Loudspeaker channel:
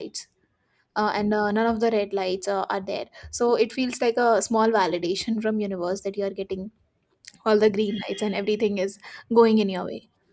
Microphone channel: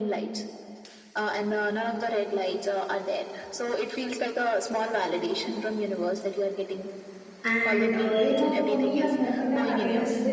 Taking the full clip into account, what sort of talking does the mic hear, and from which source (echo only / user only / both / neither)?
both